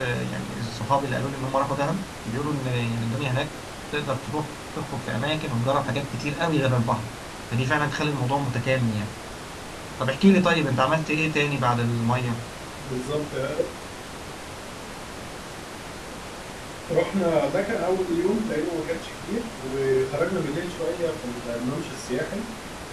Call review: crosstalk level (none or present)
none